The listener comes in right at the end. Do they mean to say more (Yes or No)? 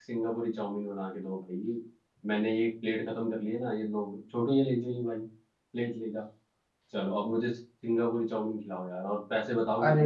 Yes